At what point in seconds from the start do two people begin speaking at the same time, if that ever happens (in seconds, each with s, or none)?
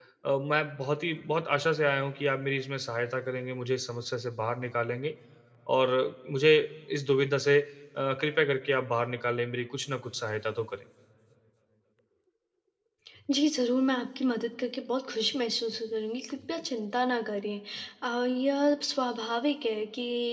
none